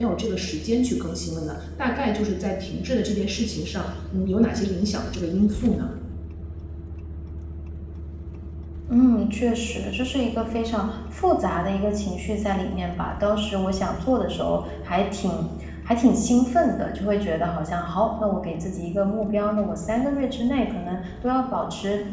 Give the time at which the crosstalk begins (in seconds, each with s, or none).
none